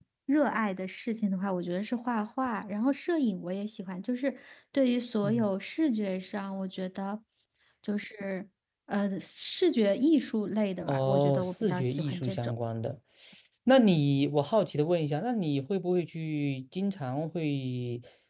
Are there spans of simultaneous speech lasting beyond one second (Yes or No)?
Yes